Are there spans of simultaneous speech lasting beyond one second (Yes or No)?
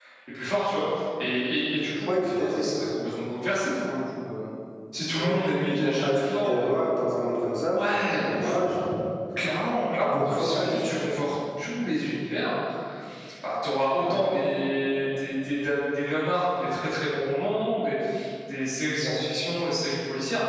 Yes